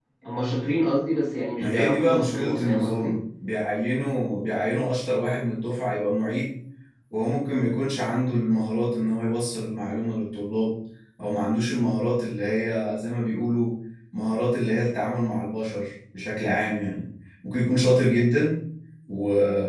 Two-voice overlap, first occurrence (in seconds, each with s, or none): 1.6 s